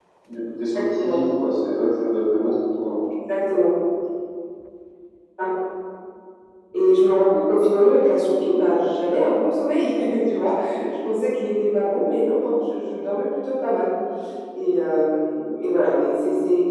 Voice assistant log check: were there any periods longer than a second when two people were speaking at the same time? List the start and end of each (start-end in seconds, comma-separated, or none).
none